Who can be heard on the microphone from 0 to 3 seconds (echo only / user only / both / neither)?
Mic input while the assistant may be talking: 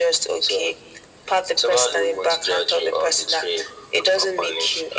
echo only